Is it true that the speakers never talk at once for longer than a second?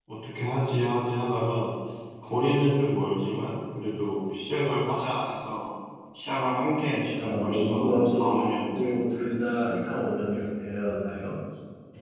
No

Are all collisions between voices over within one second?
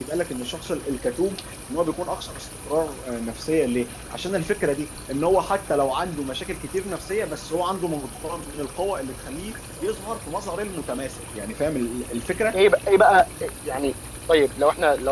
Yes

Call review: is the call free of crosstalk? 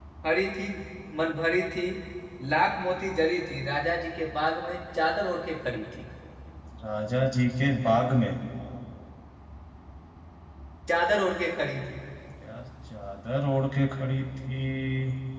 Yes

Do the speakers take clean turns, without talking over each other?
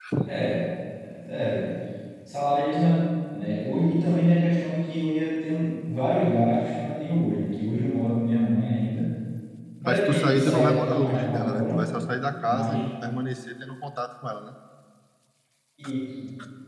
No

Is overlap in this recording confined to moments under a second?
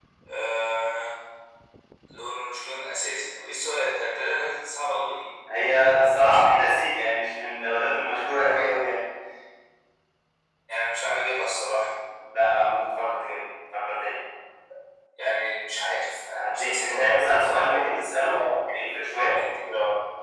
No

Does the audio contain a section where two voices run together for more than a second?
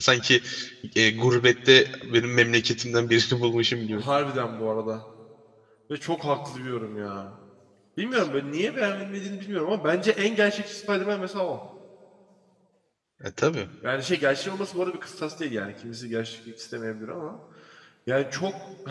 No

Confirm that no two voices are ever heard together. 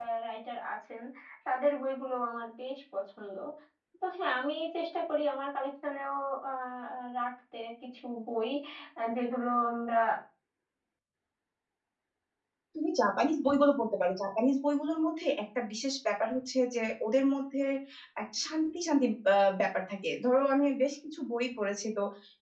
Yes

